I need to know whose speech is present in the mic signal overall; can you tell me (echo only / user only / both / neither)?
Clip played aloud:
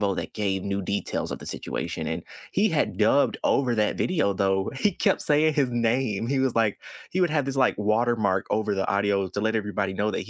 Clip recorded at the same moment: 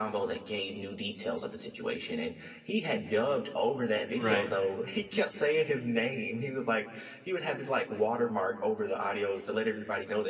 both